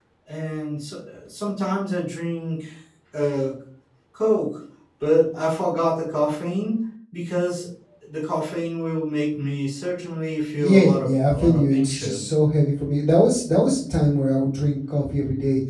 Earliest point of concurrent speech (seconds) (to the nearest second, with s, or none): 11 s